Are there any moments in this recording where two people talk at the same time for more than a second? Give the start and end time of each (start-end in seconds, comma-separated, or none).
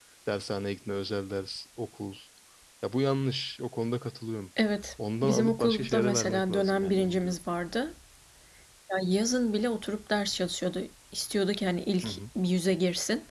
5.2-7.3